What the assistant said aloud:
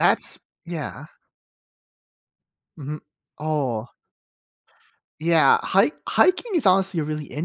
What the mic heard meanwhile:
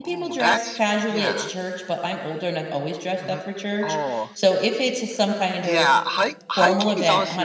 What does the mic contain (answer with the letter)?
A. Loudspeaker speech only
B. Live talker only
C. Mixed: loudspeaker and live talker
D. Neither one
C